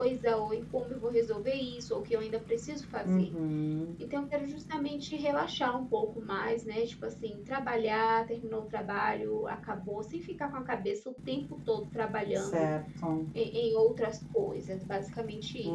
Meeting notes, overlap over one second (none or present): none